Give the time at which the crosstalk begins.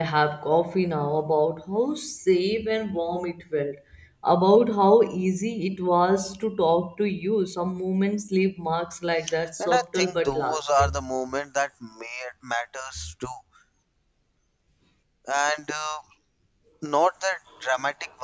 9.6 s

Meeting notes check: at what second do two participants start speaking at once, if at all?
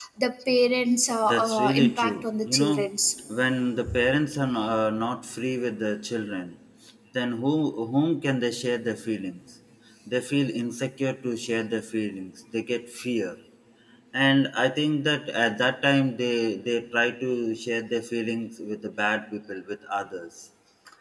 1.2 s

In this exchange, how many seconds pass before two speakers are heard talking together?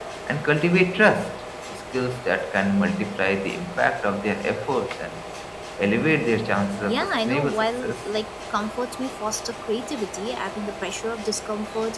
6.8 s

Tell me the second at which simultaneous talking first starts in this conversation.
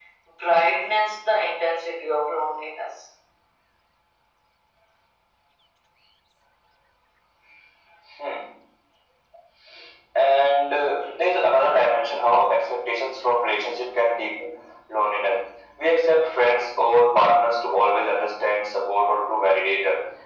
none

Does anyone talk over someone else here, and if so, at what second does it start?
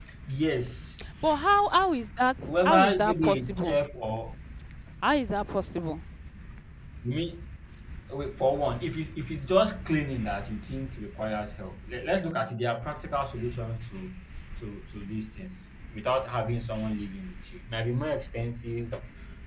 2.5 s

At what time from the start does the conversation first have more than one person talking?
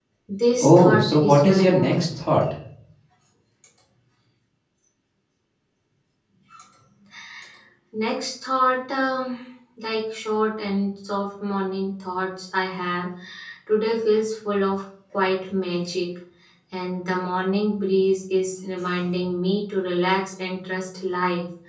0.6 s

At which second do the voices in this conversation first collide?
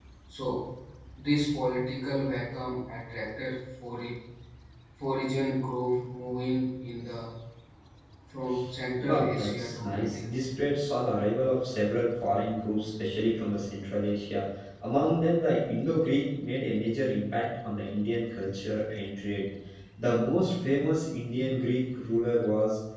8.9 s

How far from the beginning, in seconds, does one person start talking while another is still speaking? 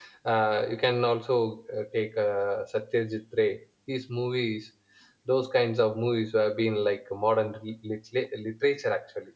none

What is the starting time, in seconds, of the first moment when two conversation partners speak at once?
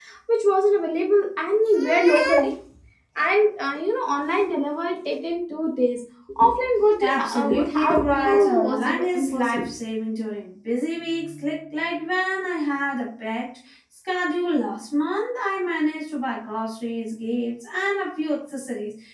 7.0 s

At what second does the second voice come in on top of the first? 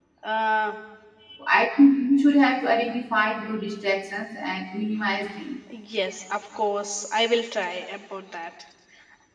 none

